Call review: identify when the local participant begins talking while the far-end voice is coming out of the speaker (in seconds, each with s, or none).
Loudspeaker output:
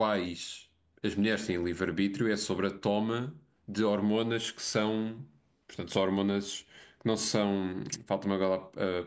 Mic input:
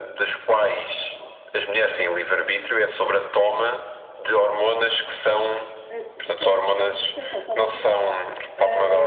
5.9 s